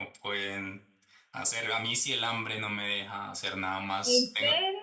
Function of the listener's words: listening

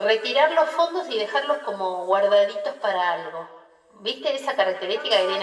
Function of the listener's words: taking over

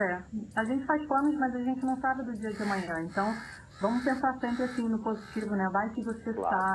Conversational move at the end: listening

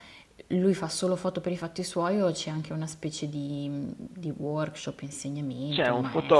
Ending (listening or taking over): taking over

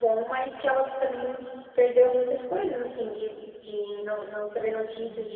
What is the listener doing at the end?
listening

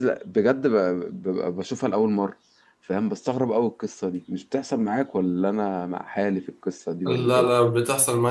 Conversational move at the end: taking over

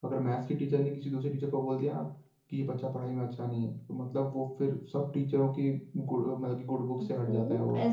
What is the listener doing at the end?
taking over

